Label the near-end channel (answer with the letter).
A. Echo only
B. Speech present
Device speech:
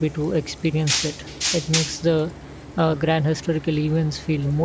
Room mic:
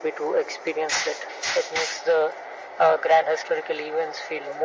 A